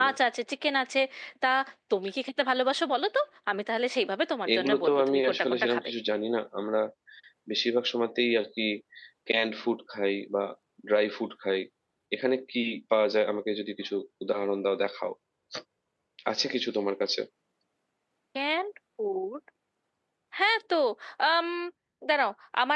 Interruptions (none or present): present